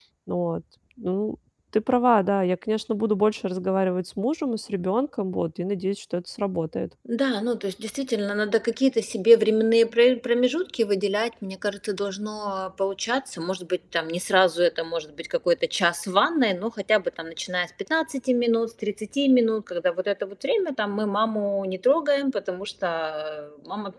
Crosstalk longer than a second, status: none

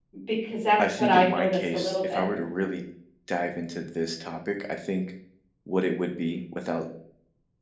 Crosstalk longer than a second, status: present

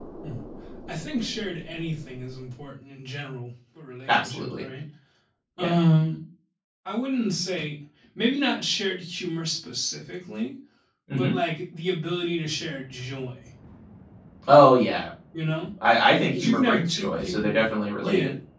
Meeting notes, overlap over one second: present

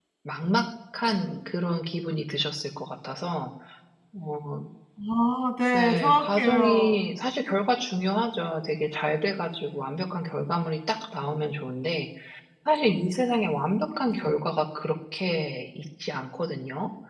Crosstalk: present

